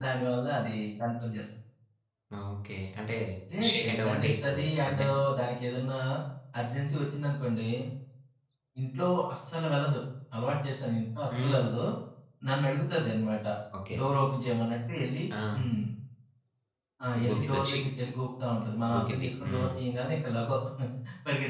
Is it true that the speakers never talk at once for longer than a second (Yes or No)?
No